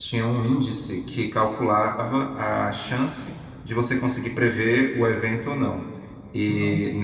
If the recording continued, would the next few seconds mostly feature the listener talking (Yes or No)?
No